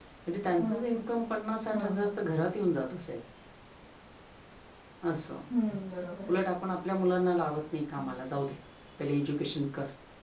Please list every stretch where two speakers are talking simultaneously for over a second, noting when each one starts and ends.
none

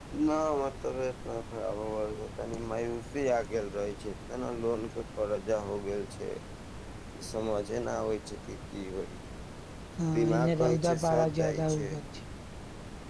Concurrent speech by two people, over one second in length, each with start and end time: 10.2-11.9

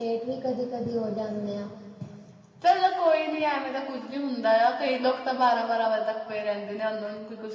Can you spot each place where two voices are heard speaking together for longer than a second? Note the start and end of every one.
none

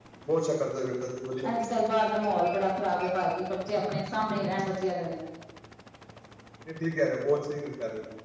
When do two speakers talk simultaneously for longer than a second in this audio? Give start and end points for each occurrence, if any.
none

